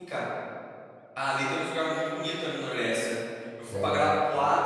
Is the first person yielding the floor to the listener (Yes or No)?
No